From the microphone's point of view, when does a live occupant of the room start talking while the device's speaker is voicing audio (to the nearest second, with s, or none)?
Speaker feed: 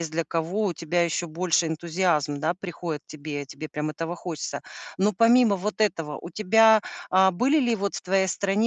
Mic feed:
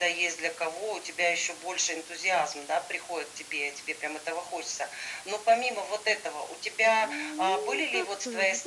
7 s